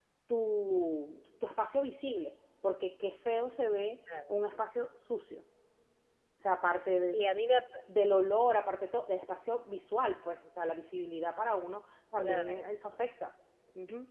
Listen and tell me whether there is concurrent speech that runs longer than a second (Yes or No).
No